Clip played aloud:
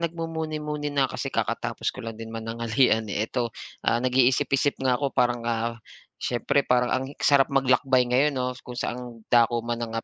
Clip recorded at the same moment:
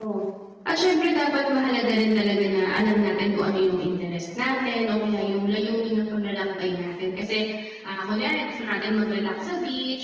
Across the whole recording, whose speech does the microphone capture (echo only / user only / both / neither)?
user only